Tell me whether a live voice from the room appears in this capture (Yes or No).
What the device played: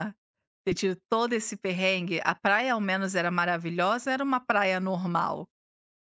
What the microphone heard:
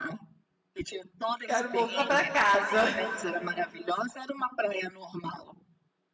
Yes